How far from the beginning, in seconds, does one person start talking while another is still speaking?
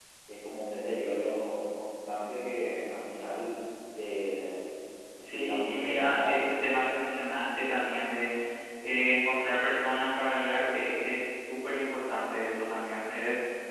5.3 s

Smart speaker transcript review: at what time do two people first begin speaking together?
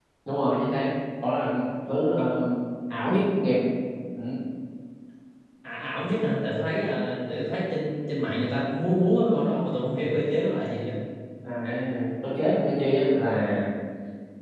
none

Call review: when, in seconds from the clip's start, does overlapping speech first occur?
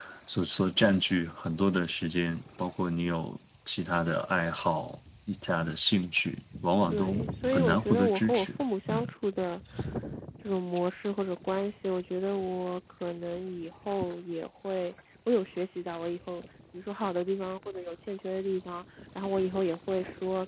6.9 s

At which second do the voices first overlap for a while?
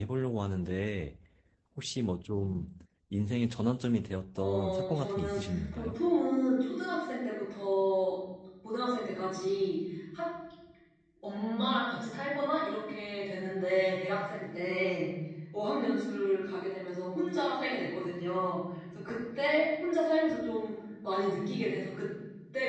4.4 s

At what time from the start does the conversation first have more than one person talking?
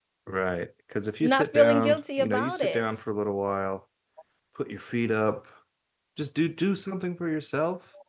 1.2 s

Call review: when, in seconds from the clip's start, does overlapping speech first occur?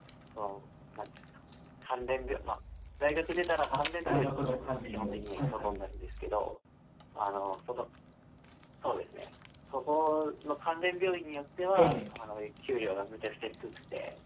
3.7 s

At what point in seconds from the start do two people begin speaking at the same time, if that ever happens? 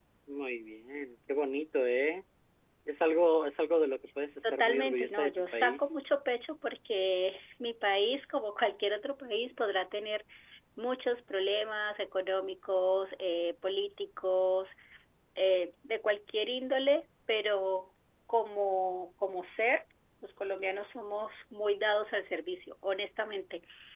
4.4 s

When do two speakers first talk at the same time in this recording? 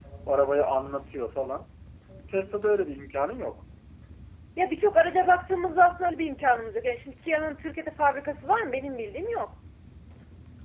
none

